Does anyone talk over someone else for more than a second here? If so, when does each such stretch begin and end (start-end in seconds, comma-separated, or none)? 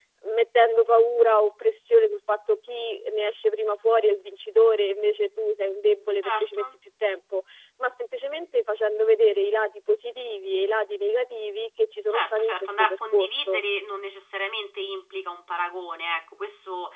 12.1-13.6